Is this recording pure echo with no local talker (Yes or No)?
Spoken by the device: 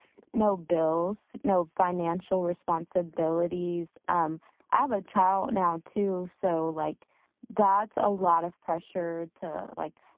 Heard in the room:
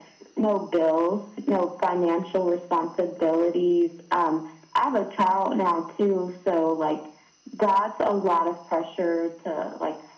Yes